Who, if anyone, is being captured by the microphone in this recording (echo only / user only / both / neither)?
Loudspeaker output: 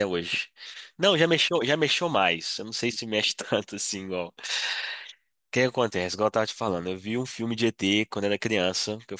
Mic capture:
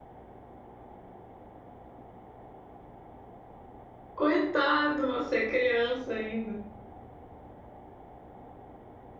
user only